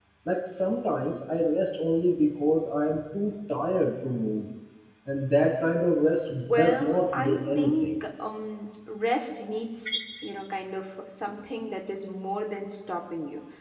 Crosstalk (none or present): present